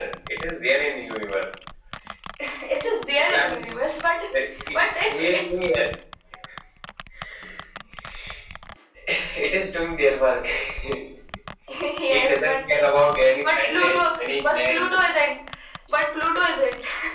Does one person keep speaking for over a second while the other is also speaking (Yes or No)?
Yes